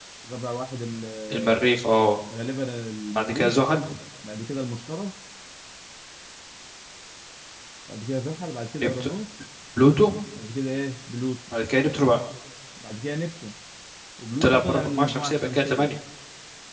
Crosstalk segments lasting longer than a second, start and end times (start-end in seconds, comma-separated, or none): 14.4-15.9